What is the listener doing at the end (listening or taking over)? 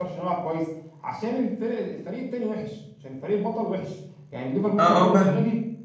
taking over